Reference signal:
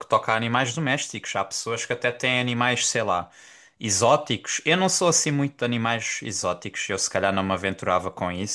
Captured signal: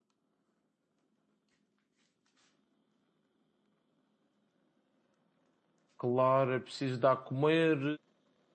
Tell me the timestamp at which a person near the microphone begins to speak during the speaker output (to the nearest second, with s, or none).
6 s